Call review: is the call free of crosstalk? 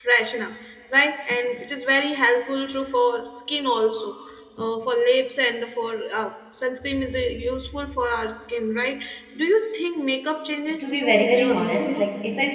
No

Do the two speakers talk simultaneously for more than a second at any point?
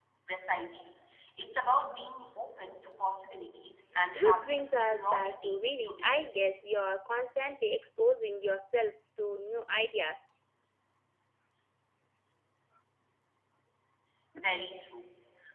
Yes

